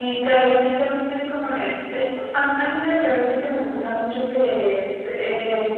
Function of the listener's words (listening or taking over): listening